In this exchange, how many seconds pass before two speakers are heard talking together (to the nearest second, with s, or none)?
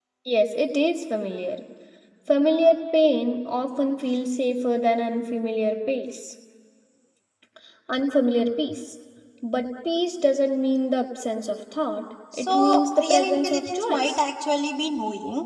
12 s